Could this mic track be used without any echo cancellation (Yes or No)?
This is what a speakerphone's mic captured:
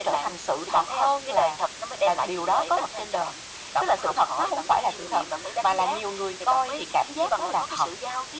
No